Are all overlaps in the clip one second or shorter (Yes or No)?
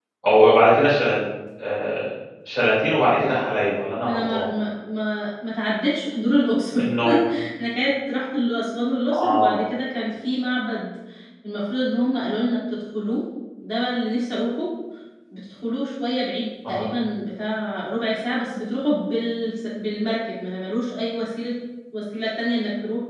Yes